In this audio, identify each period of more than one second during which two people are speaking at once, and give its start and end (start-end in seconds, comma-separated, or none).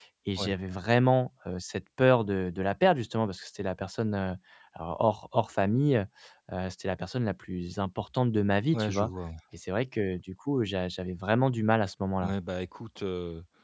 none